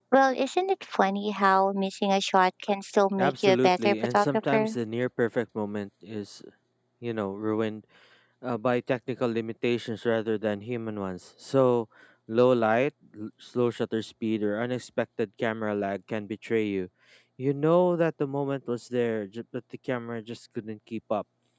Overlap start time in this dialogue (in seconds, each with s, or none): 3.2 s